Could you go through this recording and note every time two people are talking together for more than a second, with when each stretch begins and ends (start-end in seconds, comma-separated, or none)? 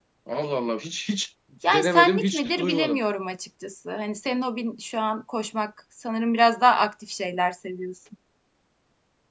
1.6-3.0